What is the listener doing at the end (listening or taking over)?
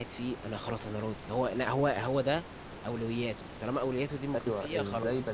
taking over